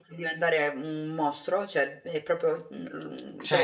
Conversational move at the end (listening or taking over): taking over